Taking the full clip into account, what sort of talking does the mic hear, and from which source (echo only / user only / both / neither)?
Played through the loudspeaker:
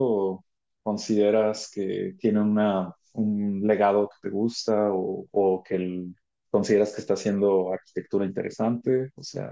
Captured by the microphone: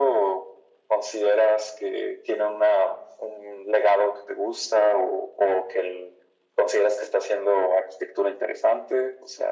echo only